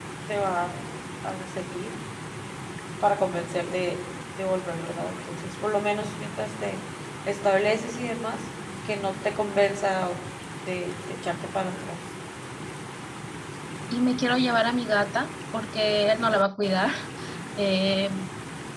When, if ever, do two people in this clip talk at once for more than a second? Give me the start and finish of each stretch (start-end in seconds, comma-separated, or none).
none